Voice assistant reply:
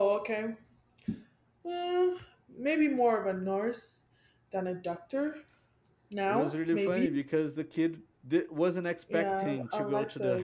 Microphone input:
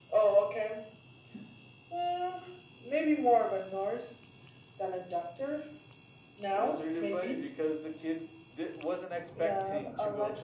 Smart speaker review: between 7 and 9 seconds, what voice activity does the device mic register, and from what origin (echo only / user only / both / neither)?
echo only